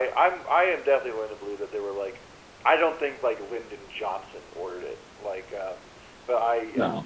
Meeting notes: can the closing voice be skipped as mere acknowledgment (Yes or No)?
Yes